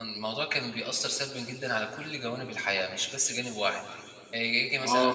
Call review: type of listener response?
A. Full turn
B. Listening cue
A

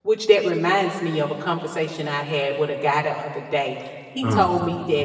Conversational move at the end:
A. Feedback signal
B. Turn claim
A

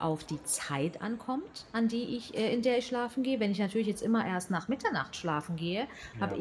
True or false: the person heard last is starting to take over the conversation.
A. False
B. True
A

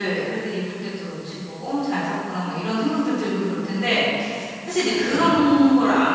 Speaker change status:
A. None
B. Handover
A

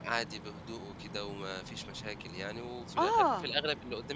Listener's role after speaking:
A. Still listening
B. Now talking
A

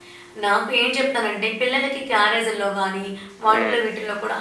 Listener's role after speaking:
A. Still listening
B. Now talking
A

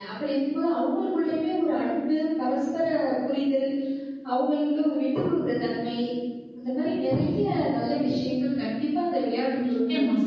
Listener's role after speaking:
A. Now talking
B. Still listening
A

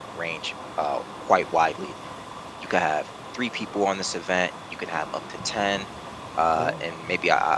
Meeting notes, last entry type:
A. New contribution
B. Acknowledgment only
B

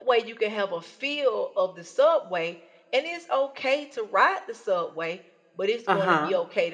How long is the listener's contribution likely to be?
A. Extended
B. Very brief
B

